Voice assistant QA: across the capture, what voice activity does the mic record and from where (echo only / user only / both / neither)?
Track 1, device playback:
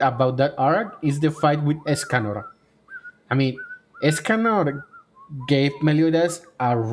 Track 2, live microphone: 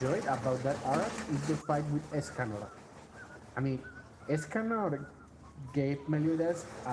echo only